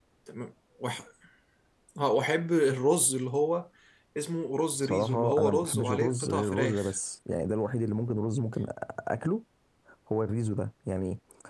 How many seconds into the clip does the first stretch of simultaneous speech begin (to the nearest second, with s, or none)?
5 s